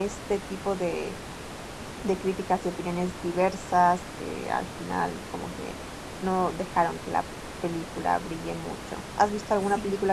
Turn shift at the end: No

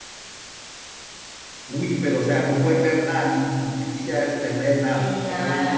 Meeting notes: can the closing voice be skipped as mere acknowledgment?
No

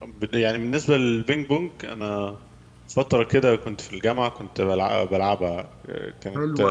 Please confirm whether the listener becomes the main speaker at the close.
Yes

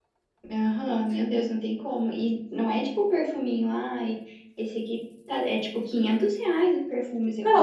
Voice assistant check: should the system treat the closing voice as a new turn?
Yes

